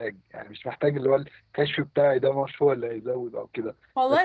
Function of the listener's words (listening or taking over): taking over